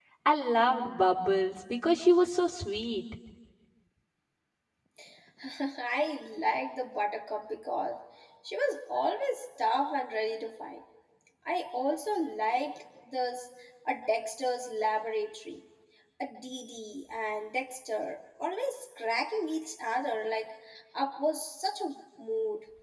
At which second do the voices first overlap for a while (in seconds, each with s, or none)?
none